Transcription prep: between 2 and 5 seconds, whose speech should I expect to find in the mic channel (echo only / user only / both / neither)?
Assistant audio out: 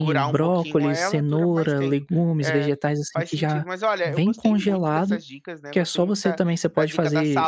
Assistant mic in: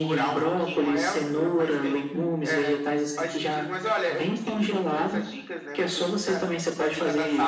echo only